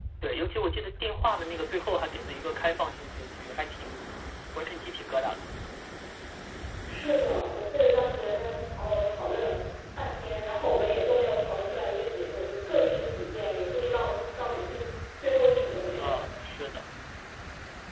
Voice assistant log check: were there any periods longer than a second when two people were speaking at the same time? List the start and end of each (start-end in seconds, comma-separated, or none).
none